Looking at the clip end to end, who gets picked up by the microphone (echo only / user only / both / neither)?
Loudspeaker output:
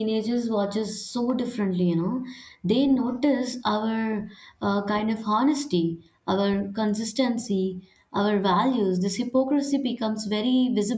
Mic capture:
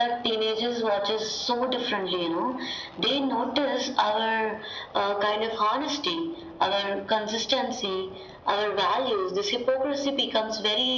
echo only